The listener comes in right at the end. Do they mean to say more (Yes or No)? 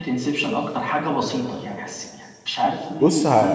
Yes